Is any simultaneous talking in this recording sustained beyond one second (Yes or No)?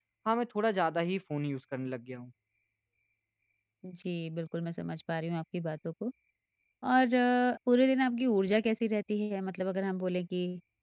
No